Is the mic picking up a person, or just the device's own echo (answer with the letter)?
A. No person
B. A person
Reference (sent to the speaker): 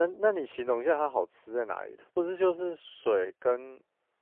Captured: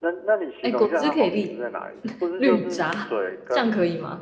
B